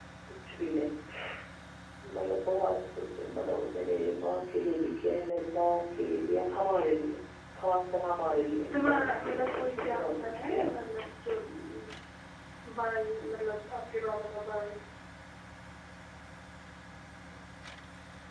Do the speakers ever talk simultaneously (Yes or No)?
Yes